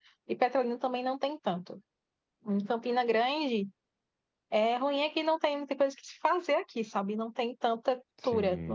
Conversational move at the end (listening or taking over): listening